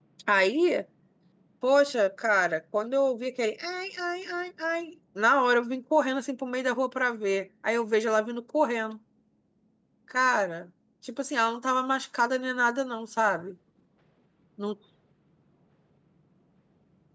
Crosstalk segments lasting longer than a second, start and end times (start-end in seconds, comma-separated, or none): none